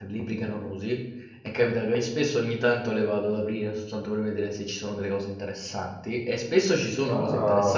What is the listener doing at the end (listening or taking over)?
listening